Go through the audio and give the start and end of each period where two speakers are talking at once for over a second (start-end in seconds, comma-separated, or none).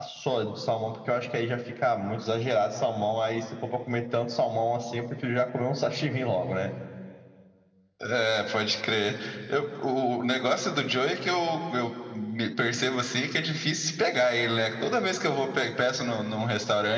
none